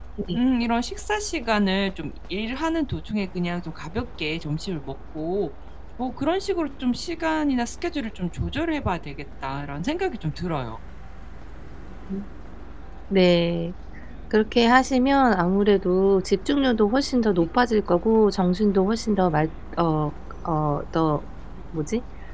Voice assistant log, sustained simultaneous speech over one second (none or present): none